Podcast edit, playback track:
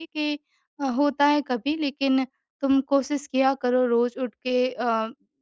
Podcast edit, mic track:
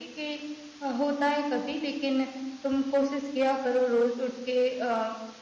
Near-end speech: none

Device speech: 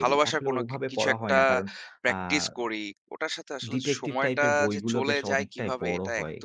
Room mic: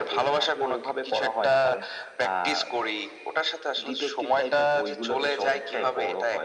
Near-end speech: none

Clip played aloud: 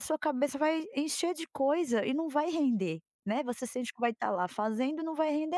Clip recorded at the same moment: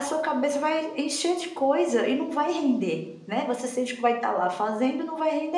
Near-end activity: none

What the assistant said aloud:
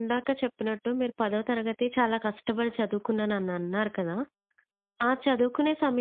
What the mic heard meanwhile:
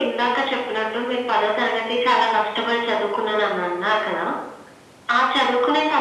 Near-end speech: none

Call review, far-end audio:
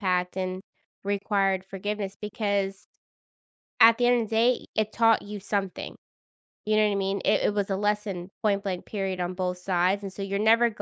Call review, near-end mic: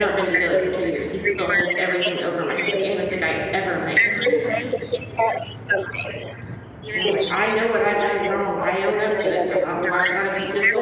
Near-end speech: present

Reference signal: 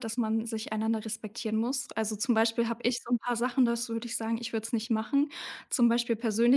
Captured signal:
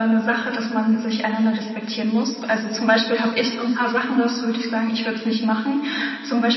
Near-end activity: none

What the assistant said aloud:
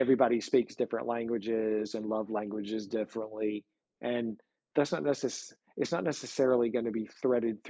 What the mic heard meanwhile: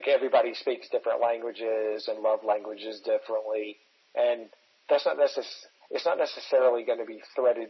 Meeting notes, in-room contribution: none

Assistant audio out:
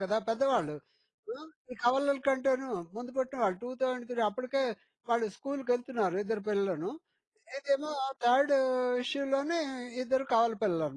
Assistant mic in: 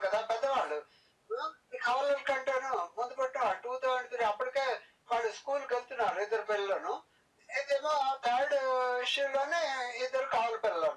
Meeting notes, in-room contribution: none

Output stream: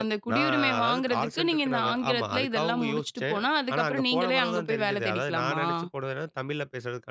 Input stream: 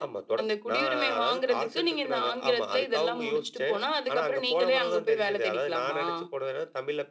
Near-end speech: none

